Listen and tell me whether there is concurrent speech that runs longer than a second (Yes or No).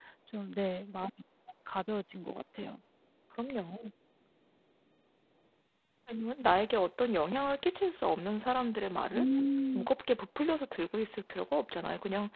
No